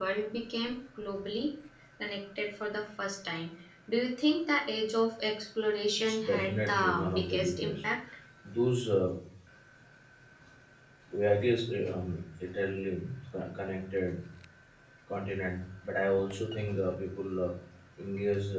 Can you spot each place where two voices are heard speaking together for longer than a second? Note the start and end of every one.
6.0-7.7

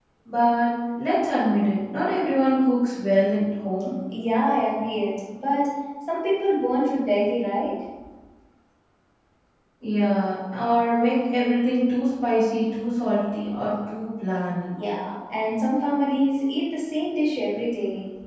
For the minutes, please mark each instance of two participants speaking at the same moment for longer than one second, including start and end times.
none

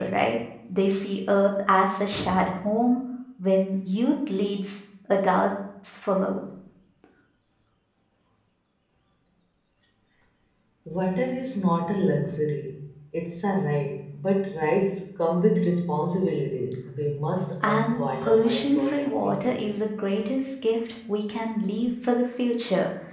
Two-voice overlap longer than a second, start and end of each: 17.6-19.5

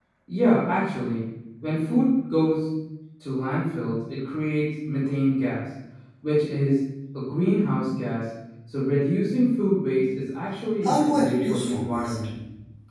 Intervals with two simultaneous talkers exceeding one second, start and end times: 10.8-12.1

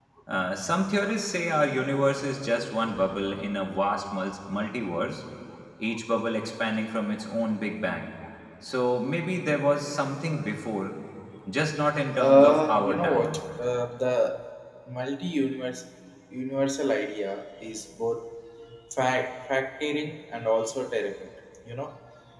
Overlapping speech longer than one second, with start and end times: 12.2-13.4

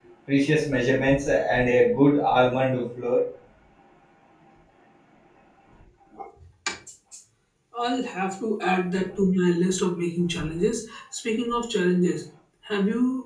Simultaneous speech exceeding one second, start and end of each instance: none

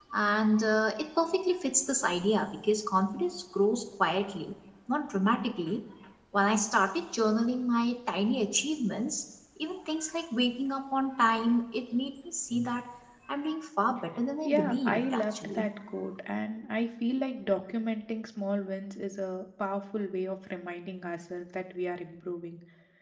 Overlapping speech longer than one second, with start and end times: 14.4-15.7

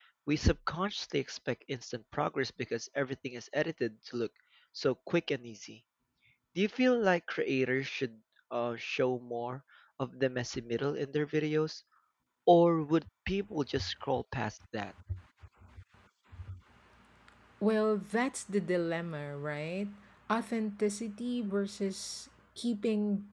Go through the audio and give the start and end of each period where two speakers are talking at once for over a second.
none

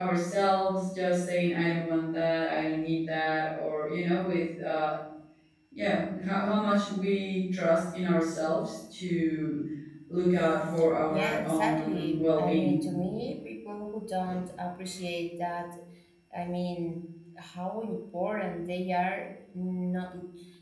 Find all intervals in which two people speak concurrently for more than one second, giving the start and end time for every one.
11.1-12.8

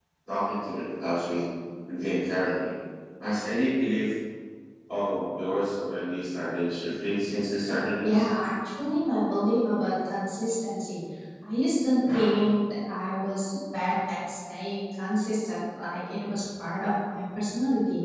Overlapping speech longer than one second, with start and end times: none

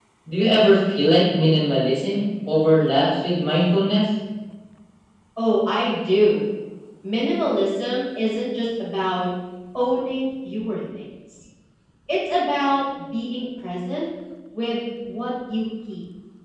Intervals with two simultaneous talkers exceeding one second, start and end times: none

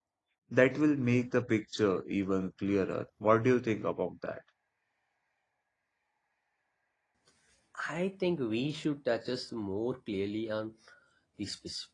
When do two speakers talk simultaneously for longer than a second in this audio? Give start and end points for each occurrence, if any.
none

